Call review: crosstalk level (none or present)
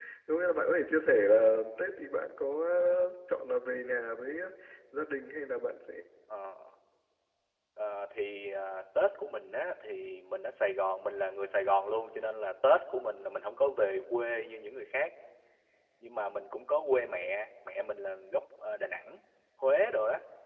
none